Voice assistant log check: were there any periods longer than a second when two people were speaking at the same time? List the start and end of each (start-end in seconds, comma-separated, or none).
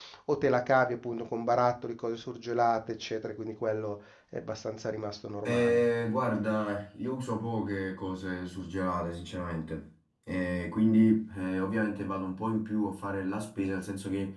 none